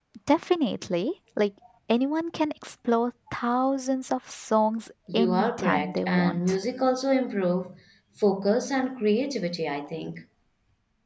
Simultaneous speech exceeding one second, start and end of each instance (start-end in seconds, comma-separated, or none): 5.1-6.6